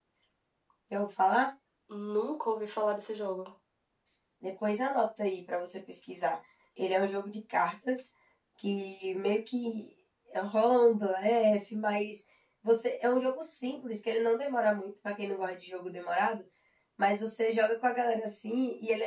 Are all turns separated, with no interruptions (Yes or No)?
Yes